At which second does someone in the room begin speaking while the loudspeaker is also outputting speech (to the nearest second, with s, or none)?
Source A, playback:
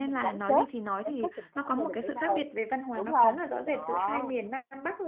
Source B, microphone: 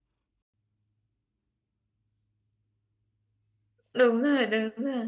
4 s